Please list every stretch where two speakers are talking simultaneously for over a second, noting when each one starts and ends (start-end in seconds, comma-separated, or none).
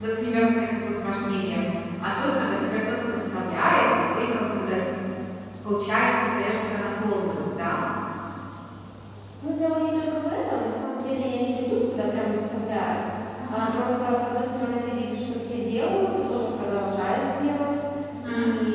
none